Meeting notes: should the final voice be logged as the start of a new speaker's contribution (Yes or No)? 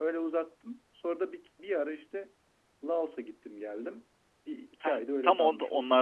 Yes